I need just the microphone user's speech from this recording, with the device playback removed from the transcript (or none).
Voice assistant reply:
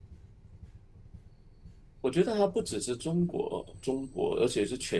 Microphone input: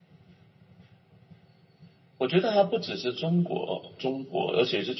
none